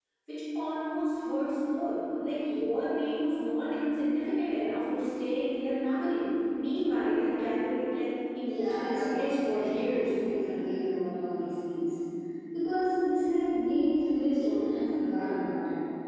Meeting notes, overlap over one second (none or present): present